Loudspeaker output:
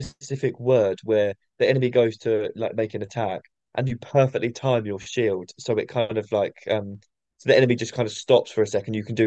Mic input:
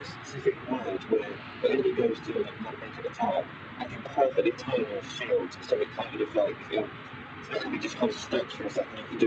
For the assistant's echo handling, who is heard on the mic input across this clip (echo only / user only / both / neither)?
echo only